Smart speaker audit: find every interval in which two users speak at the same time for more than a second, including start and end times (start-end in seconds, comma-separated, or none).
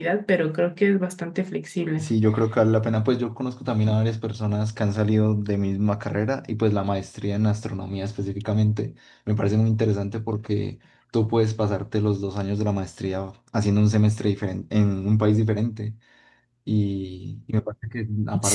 none